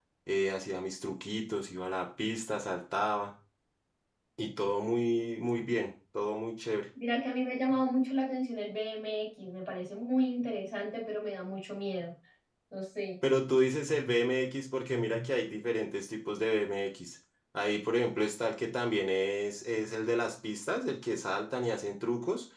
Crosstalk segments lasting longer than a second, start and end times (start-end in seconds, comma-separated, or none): none